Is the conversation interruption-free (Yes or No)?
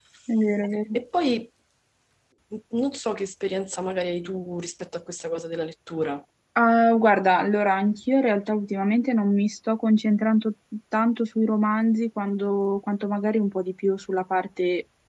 Yes